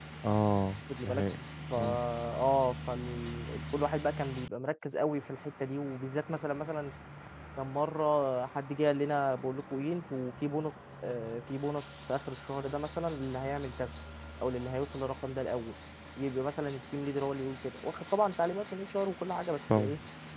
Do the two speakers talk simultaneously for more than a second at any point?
No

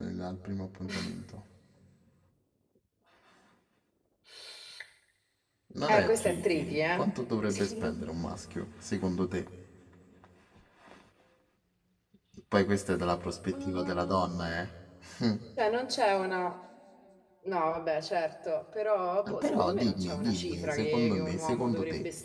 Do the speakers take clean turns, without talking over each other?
No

